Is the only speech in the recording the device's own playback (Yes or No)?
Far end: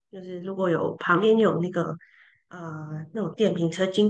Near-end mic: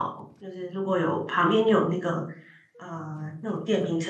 Yes